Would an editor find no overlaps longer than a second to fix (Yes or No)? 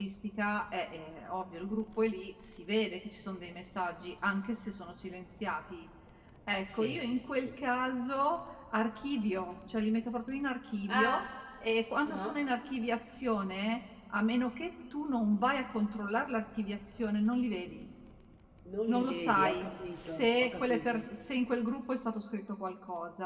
No